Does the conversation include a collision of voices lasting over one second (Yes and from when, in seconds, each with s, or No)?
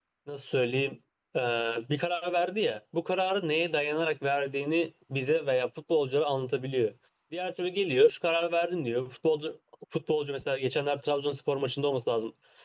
No